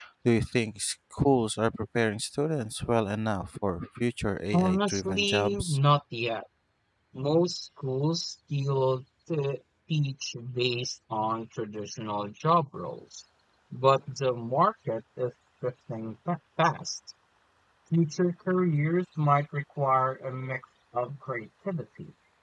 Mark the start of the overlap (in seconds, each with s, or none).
4.5 s